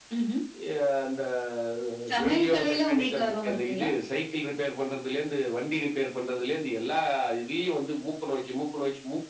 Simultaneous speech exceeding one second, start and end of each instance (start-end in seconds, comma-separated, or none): 2.2-3.9